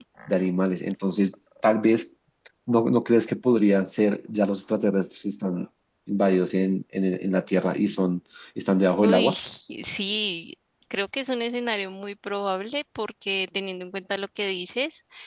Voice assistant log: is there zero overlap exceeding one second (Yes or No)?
Yes